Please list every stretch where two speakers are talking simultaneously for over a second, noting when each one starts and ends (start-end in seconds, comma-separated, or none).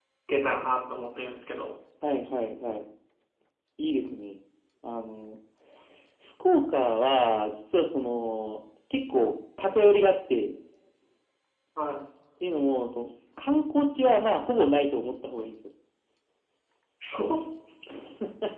none